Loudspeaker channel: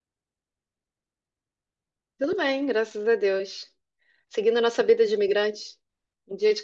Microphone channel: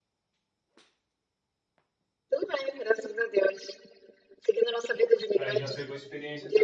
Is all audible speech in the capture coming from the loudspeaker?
No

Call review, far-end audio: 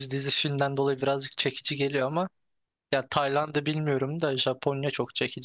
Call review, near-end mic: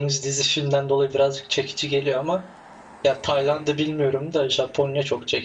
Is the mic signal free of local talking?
Yes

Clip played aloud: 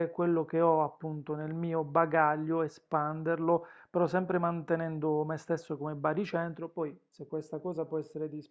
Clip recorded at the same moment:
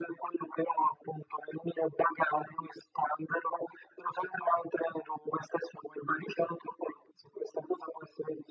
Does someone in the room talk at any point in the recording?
No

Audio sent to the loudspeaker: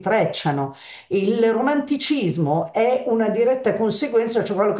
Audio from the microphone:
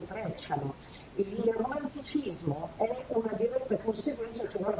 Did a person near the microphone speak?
No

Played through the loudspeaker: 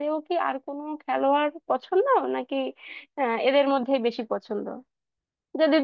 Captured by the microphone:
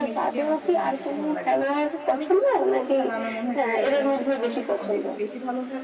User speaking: Yes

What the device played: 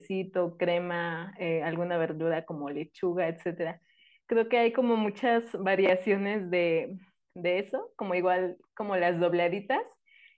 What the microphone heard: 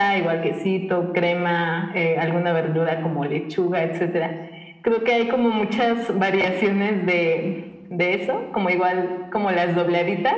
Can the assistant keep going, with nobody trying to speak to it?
Yes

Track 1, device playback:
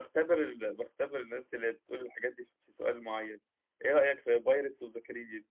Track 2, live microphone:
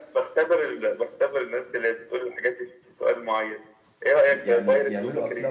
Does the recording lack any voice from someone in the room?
No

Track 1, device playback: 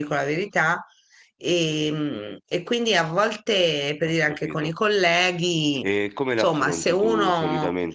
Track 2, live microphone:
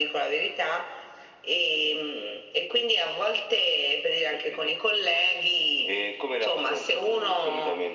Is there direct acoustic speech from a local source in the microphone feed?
No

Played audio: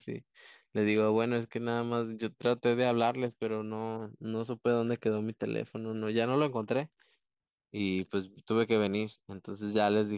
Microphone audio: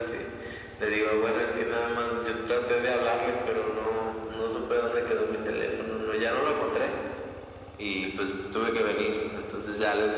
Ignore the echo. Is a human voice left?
No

